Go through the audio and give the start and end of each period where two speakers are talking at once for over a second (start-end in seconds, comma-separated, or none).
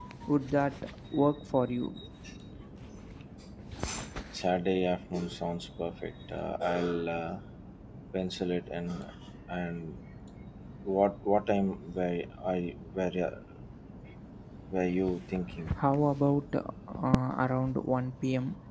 none